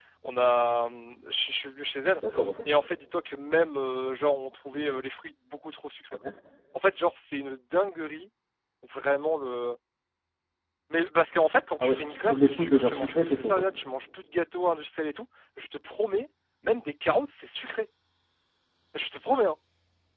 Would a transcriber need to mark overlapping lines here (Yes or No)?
Yes